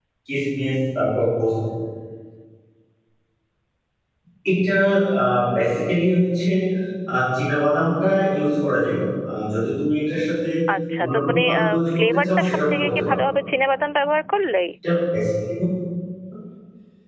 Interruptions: present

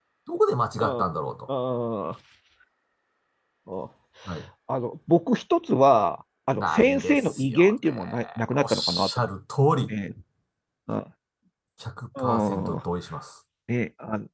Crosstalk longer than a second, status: present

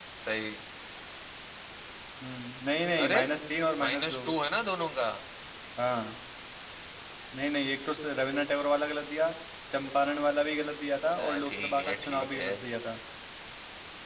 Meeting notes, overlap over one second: present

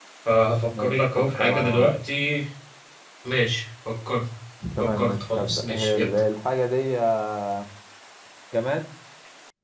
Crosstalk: present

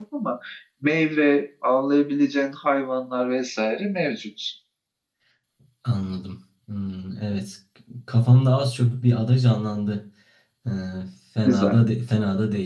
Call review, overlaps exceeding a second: none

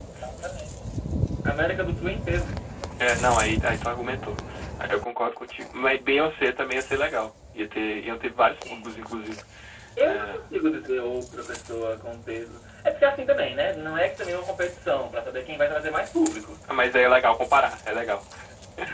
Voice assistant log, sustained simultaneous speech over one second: none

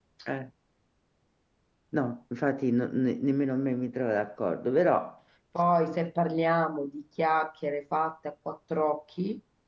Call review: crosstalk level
none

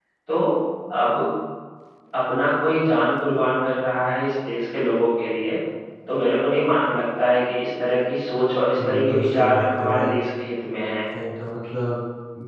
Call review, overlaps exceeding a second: present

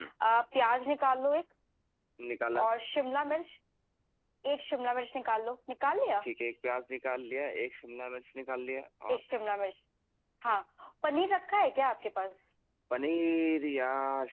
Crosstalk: none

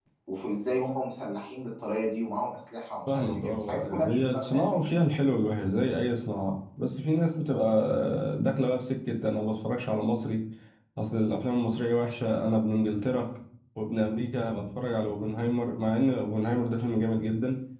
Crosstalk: present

